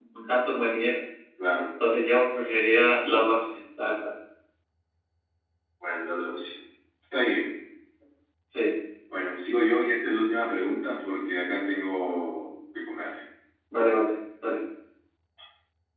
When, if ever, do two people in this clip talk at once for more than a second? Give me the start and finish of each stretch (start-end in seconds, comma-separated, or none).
none